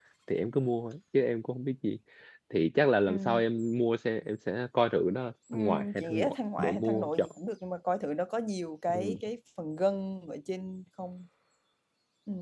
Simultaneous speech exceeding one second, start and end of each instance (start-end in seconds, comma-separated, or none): 5.5-7.3